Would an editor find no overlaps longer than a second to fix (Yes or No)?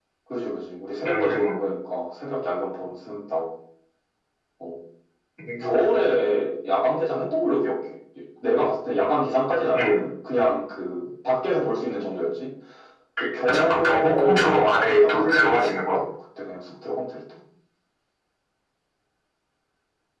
No